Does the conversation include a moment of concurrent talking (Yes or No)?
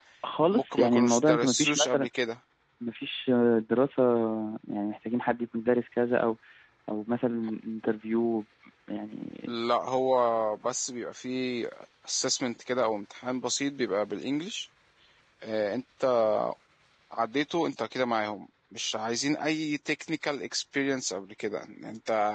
Yes